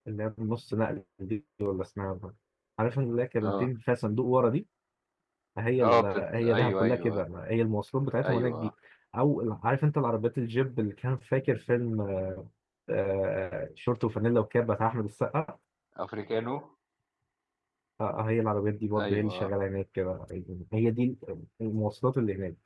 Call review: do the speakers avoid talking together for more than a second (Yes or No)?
No